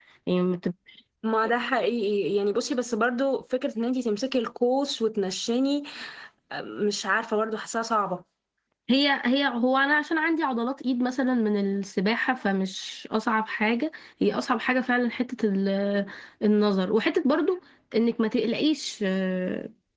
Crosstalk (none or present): none